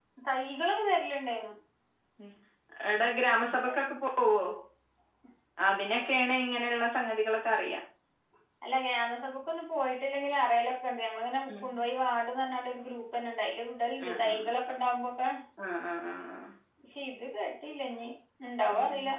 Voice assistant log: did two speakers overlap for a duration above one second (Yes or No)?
No